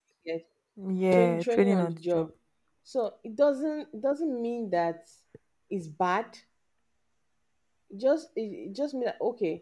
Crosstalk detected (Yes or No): Yes